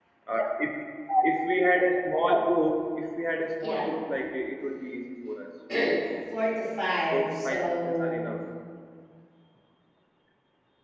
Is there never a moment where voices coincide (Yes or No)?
No